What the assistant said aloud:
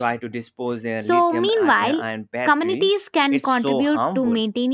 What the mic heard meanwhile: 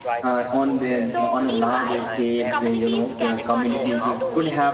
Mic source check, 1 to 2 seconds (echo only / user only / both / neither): both